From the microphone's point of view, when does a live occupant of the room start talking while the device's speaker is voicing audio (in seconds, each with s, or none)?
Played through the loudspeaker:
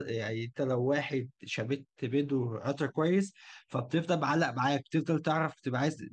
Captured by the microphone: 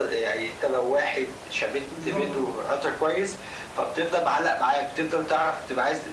1.9 s